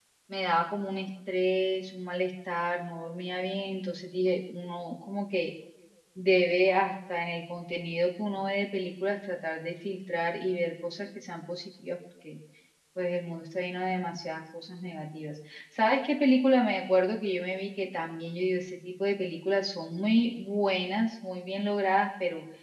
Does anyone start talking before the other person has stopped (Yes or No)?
No